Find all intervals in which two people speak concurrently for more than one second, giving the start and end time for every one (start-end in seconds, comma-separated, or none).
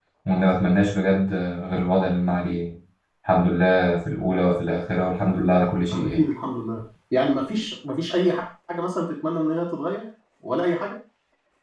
none